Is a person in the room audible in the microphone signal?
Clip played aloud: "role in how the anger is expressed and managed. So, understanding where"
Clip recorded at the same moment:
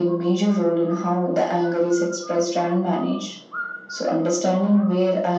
No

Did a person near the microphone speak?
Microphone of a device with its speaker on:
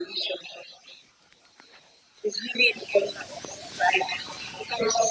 No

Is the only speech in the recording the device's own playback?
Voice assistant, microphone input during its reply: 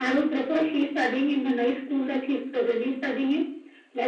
Yes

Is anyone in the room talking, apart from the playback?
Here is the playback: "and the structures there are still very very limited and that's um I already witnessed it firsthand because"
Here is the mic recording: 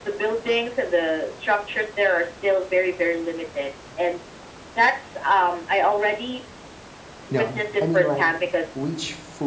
Yes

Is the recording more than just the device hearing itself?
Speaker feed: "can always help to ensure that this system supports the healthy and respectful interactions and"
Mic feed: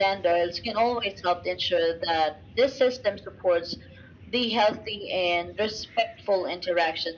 No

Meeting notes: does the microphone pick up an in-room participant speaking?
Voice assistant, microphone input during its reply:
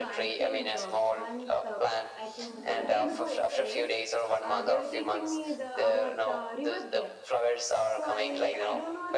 Yes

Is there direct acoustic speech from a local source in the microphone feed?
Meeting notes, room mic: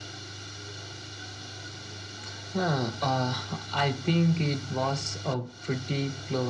No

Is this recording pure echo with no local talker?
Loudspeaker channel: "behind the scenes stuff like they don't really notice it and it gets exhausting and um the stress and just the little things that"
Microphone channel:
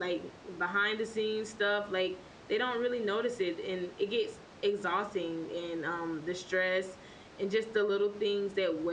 Yes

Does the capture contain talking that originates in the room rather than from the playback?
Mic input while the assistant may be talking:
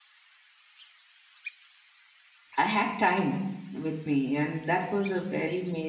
Yes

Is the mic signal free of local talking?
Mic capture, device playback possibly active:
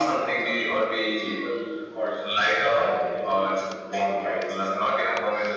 Yes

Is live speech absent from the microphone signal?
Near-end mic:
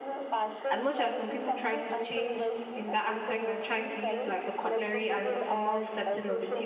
No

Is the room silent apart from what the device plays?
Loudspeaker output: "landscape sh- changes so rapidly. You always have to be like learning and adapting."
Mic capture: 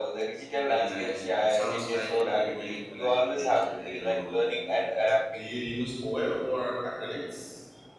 No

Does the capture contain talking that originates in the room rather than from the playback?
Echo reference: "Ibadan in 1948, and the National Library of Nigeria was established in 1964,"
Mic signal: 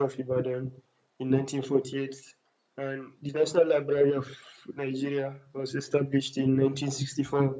No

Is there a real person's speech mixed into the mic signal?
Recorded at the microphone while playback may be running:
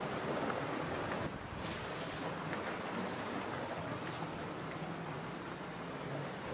No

